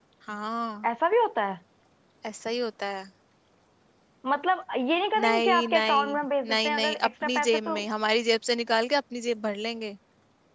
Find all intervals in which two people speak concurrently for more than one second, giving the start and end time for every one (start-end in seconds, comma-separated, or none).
5.2-7.8